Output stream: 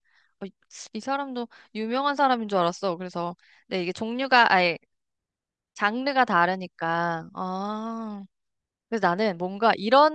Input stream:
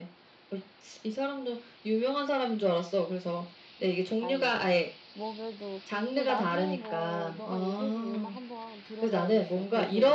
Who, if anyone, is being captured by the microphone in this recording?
both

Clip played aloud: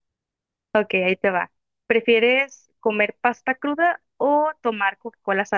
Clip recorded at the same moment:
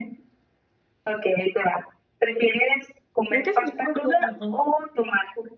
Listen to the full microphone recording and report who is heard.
both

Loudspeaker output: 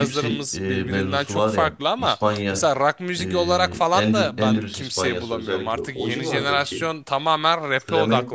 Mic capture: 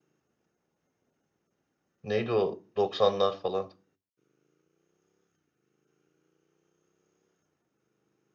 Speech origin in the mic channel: user only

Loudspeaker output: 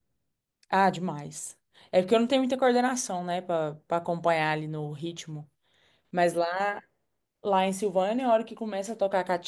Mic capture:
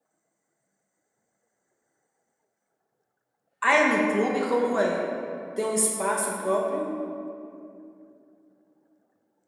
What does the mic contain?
user only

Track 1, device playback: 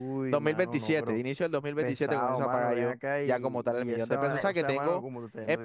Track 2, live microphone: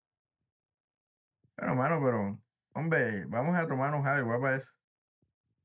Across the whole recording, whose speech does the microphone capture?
user only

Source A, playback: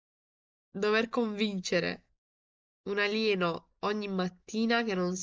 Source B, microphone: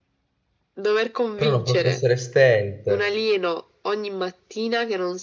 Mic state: both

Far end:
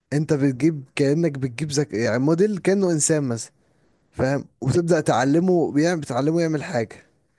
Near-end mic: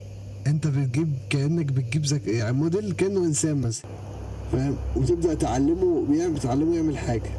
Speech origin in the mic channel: echo only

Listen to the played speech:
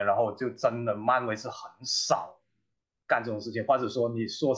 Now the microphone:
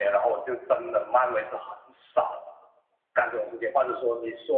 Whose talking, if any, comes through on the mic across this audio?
echo only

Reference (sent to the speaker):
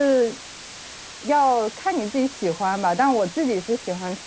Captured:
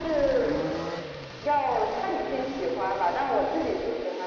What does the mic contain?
echo only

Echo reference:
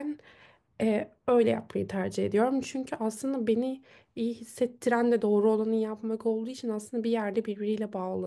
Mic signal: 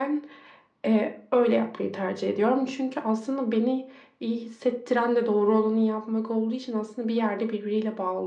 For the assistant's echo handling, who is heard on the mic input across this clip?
echo only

